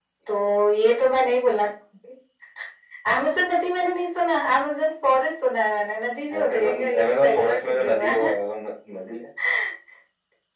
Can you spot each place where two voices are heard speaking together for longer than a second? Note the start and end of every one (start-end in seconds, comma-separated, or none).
6.3-8.4